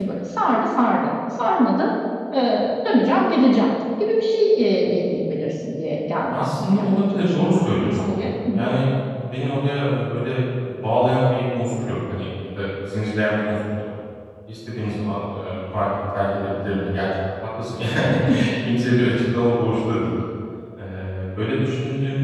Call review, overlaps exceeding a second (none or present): present